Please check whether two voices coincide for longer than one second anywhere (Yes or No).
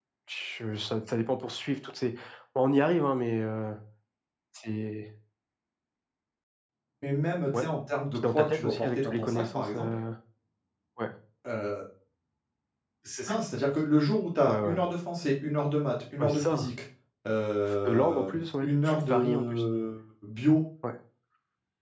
Yes